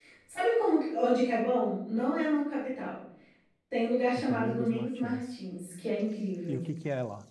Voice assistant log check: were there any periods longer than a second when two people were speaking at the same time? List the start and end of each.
4.2-5.4

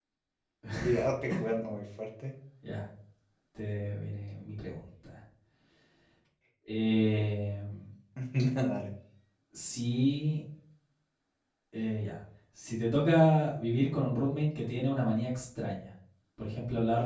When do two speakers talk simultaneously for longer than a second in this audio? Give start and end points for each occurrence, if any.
none

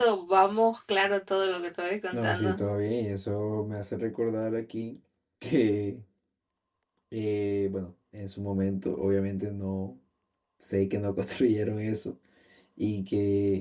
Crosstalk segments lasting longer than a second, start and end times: none

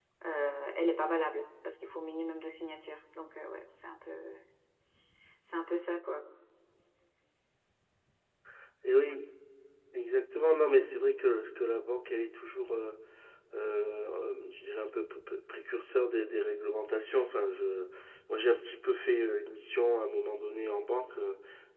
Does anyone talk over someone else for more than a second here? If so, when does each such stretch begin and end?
none

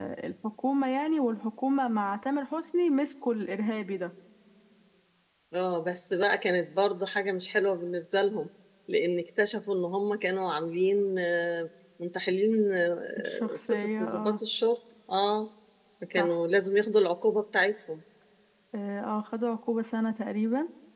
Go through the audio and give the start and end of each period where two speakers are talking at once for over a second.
13.2-14.4

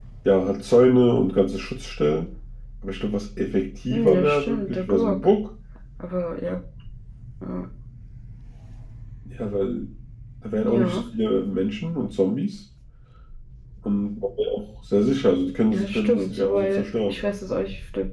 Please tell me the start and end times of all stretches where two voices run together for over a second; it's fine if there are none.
3.9-5.2, 15.7-17.2

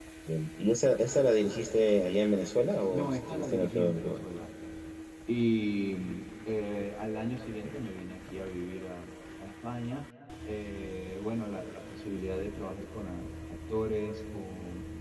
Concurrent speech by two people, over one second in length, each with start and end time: 2.9-4.1

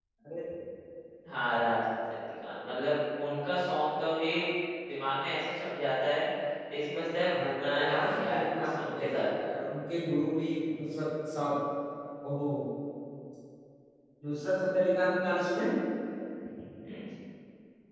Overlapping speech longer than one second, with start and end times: 7.3-9.2

